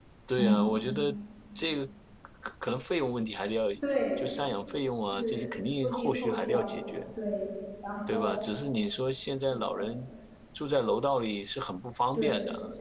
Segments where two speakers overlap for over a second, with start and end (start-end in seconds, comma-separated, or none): 5.1-7.0